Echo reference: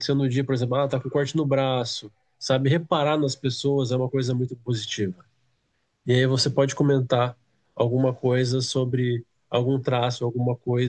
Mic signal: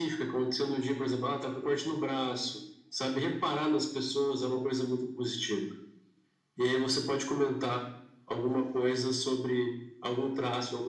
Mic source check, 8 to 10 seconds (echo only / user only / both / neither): echo only